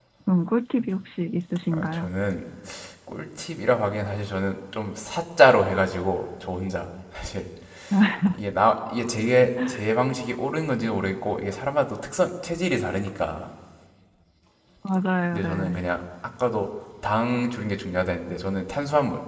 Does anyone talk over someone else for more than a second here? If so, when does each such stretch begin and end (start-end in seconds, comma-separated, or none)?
none